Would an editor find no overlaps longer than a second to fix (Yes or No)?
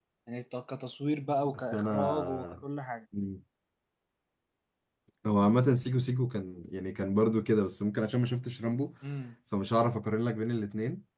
No